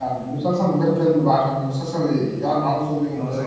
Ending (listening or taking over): taking over